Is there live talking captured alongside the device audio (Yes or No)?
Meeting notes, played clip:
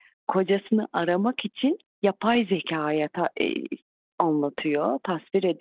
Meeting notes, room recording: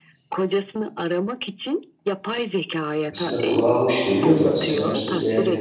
Yes